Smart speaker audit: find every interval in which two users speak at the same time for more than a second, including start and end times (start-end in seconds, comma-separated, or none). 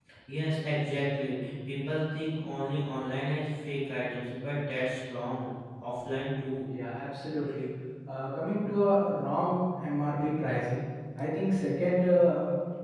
none